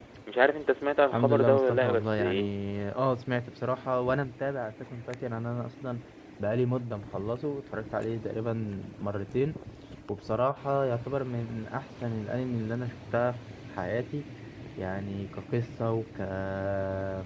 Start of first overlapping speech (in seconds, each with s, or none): 1.1 s